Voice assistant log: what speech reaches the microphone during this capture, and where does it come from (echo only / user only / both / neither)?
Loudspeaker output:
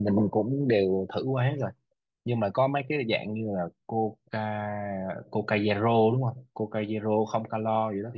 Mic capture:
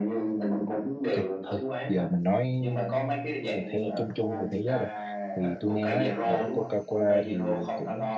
both